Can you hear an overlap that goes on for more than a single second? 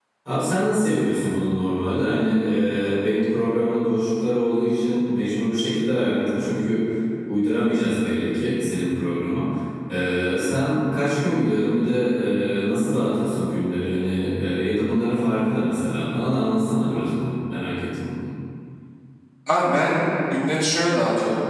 No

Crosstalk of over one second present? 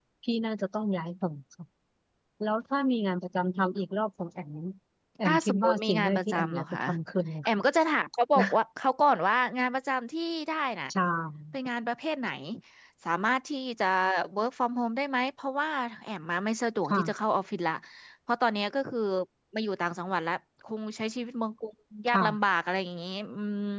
Yes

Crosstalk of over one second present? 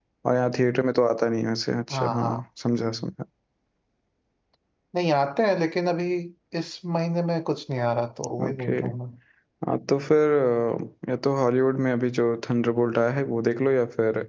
No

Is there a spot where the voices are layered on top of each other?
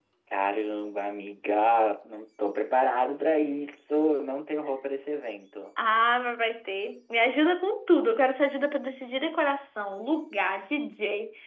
No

